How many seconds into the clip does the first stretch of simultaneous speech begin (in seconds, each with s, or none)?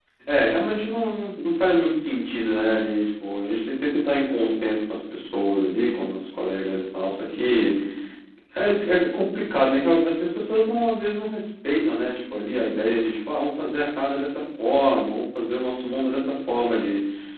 none